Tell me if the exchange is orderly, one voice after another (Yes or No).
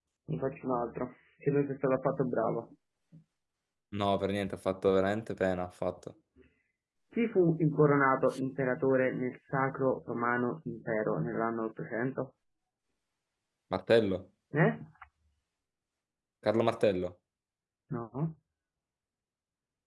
Yes